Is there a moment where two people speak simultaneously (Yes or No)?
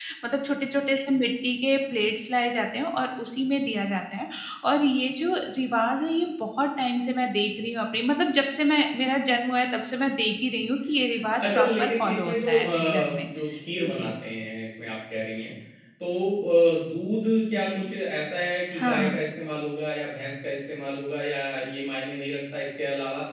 Yes